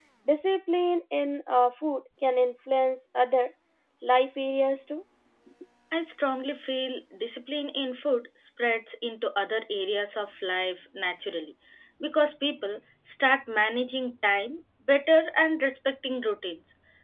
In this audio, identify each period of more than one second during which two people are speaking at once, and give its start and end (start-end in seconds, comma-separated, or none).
none